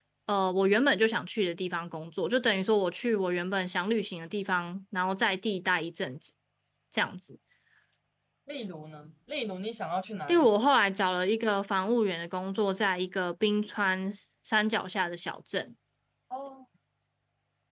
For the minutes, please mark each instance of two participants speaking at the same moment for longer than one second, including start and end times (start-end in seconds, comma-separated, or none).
none